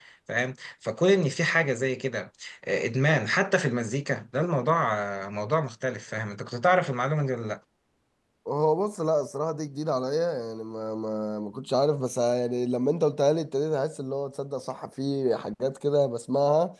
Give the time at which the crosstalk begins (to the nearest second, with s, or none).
none